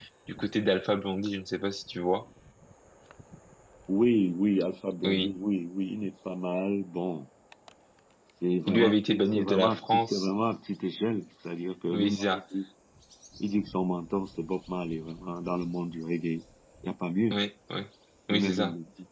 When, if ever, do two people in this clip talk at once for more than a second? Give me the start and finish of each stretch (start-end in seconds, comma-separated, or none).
8.7-10.3